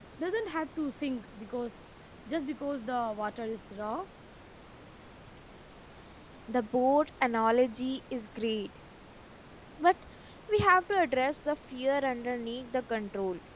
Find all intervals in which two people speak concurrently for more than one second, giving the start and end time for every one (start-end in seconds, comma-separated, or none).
none